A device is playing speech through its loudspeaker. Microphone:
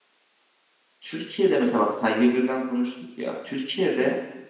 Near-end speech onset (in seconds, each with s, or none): 1.0 s